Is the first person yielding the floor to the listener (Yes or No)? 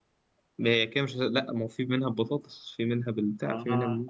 Yes